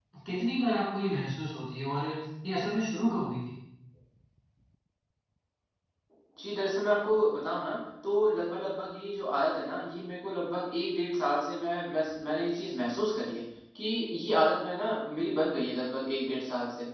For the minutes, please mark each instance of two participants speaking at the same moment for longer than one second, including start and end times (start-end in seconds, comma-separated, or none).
none